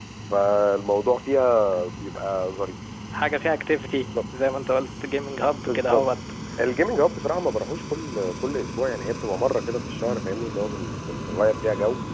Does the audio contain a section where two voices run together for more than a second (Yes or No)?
No